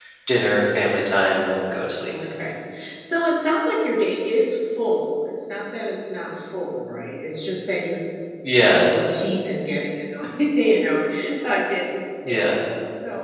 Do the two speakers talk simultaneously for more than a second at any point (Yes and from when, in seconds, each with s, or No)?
No